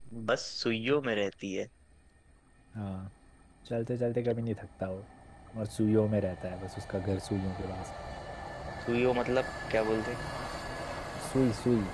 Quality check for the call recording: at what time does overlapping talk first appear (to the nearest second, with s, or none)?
none